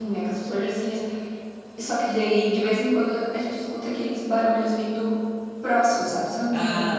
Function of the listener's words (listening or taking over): taking over